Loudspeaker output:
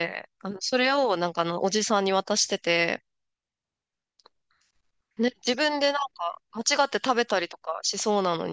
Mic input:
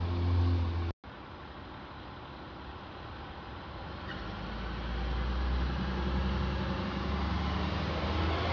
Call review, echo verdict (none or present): none